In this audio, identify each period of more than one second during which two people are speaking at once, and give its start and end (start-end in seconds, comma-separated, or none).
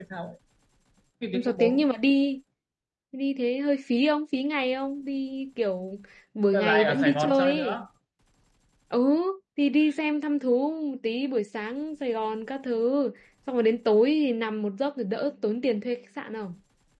6.5-7.8